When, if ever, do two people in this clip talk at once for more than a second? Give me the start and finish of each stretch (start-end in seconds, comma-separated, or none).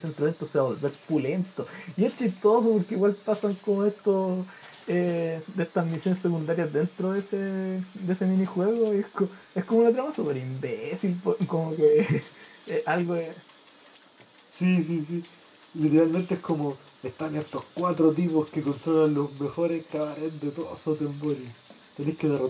none